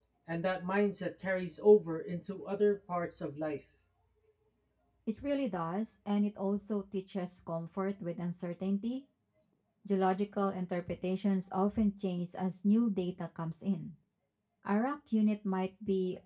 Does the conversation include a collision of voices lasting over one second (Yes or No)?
No